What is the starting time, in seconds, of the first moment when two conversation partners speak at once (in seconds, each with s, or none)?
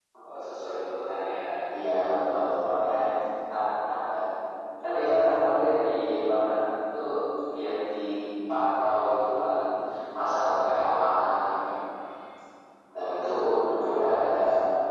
13.0 s